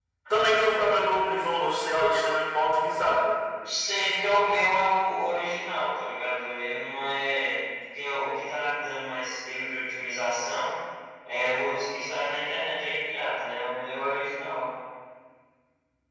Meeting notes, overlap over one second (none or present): none